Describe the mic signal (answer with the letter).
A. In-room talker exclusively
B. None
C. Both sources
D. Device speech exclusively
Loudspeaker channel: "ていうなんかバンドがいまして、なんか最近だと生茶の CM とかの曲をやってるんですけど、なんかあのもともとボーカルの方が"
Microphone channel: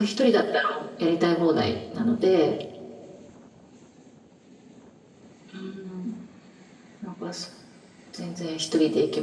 A